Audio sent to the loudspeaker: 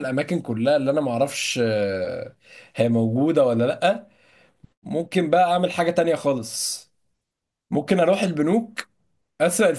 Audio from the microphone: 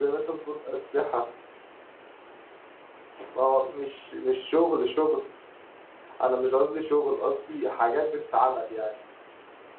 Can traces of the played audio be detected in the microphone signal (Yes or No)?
No